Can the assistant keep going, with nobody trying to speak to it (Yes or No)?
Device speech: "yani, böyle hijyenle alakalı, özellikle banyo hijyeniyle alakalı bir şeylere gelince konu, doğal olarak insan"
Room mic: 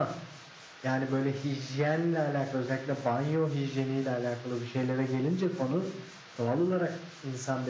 Yes